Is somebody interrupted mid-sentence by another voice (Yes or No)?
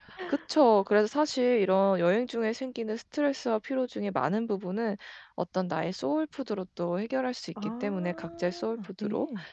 Yes